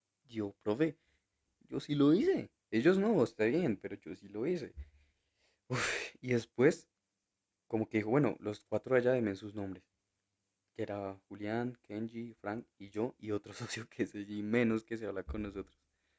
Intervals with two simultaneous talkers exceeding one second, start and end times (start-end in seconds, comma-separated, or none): none